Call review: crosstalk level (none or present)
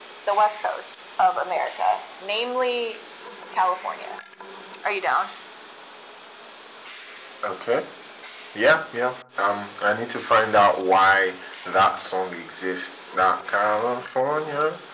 none